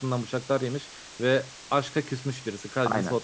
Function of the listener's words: taking over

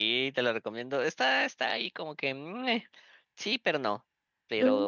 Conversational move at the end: listening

